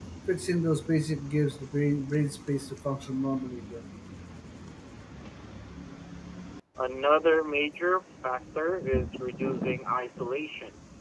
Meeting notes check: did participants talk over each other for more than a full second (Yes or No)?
No